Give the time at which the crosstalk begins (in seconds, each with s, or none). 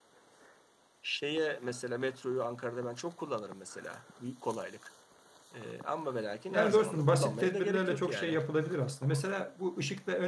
6.5 s